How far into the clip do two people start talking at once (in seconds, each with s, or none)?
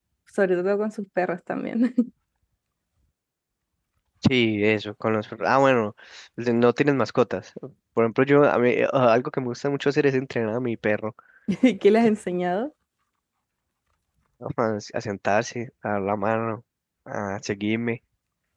none